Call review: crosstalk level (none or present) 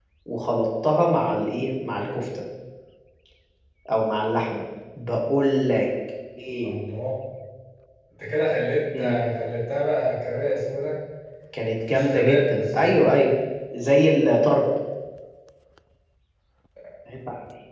present